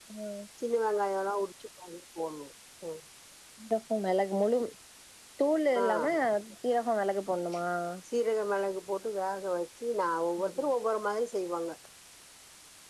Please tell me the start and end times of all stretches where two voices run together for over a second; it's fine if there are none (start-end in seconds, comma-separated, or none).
none